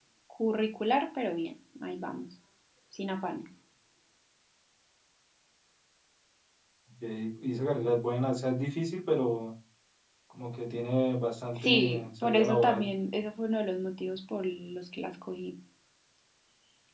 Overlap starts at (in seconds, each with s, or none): 11.6 s